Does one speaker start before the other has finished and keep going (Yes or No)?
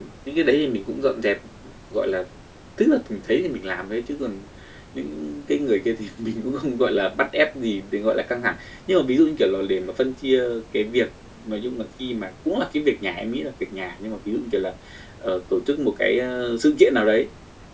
No